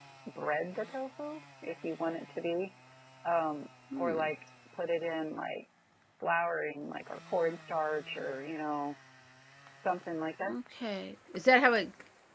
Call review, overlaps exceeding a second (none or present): none